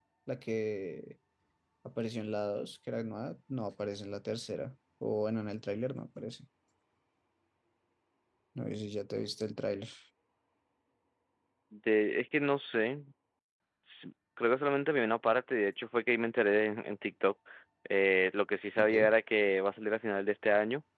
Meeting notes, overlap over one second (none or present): none